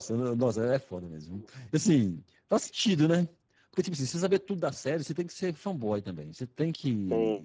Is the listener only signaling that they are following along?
Yes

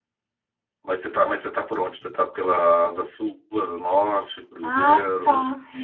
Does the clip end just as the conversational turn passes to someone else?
Yes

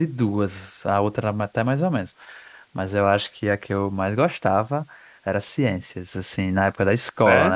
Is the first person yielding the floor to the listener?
No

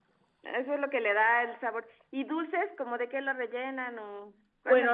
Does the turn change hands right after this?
Yes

